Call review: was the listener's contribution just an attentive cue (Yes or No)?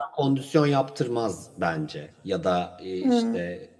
Yes